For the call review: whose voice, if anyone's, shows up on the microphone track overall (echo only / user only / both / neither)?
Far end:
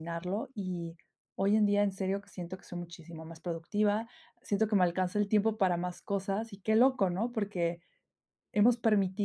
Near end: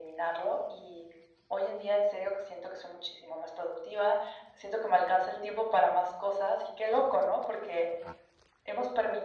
echo only